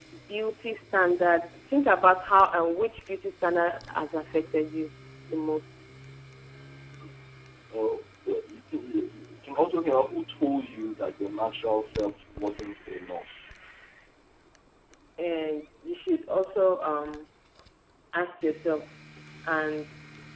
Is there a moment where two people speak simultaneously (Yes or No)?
No